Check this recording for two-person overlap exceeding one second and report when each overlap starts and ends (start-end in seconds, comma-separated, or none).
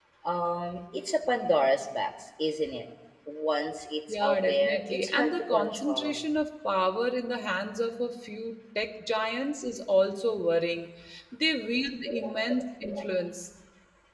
4.1-6.2